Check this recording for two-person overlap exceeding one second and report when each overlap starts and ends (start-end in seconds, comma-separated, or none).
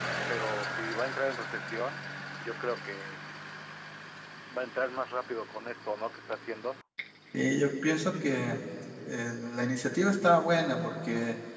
none